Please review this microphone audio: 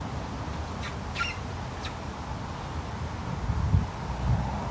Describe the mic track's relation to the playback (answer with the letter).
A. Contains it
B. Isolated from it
B